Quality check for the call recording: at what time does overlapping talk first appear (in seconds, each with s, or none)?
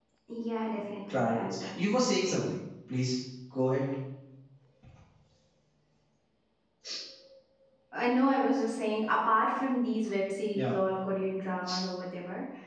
1.1 s